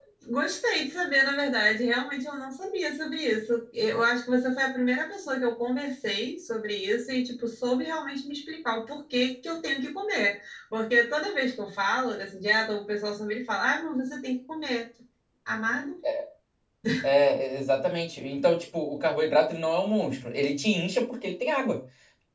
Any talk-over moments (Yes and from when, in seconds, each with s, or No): No